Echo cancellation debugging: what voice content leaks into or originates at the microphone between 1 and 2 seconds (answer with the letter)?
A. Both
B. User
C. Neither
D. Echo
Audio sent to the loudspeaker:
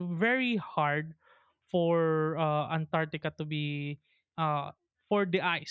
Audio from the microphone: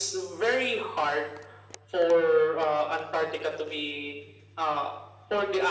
D